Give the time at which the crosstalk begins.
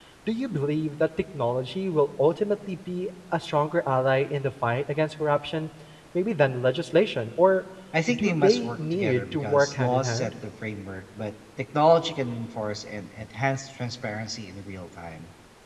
8 s

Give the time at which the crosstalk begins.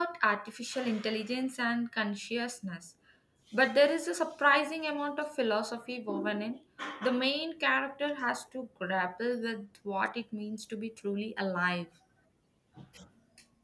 none

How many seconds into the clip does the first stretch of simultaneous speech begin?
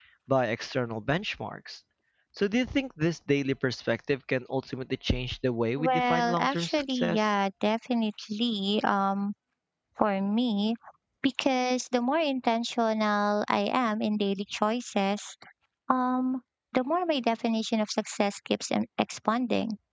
6 s

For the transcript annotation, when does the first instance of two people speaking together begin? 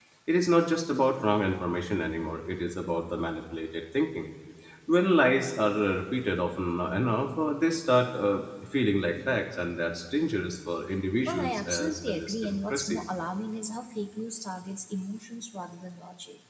11 s

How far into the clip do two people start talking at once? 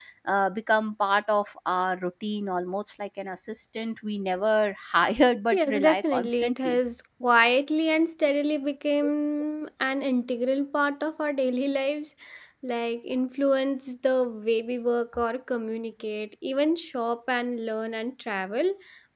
6 s

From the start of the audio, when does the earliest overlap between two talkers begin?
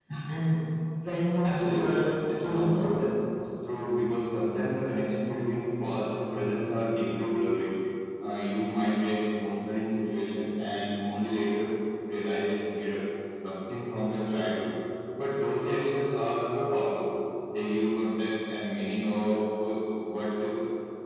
1 s

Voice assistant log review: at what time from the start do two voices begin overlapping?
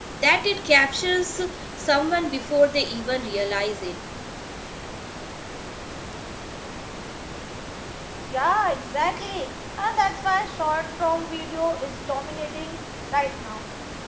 none

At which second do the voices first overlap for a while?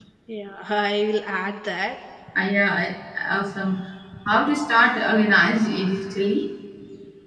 none

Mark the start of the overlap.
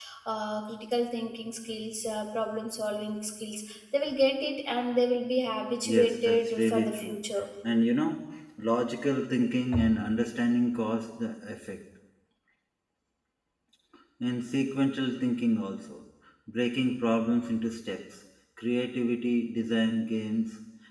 6 s

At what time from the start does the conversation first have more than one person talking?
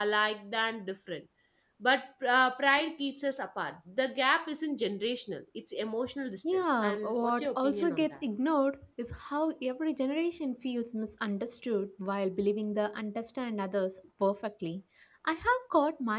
6 s

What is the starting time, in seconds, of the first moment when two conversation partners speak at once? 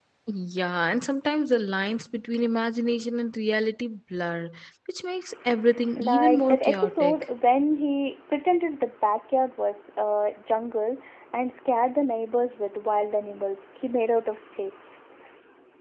6 s

